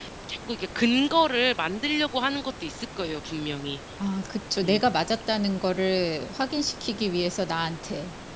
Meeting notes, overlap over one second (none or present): none